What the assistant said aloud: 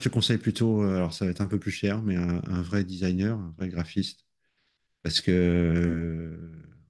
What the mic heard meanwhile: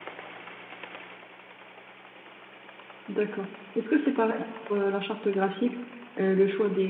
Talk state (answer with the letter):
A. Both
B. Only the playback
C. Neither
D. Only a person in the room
D